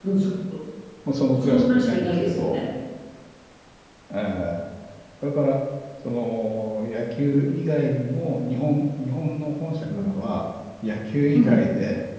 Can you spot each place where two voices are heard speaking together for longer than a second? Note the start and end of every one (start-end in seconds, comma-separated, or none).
1.4-2.6